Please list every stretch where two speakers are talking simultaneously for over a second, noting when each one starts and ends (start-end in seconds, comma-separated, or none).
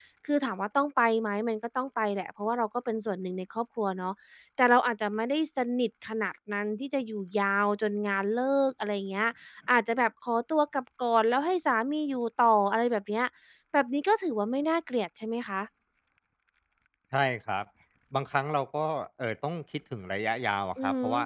none